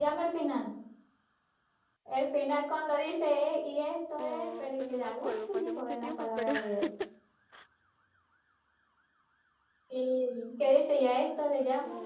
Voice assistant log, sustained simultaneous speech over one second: present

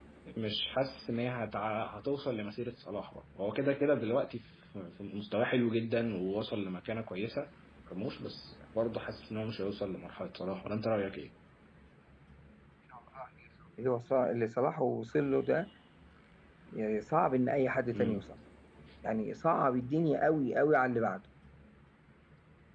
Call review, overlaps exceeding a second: none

